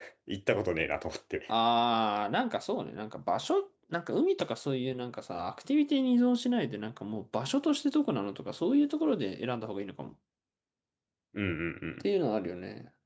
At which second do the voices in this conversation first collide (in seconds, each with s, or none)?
none